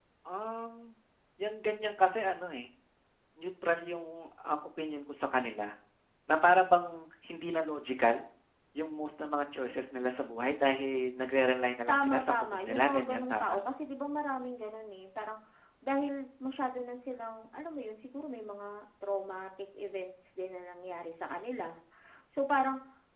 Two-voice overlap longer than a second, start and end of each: 11.9-13.6

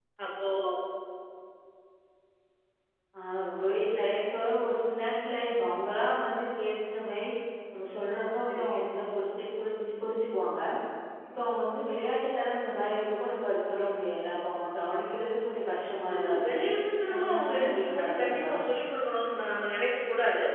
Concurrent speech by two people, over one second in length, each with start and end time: 17.1-18.5

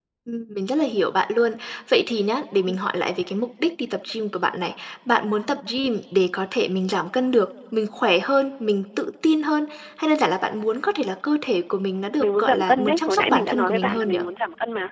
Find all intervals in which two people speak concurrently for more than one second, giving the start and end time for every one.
12.2-14.1

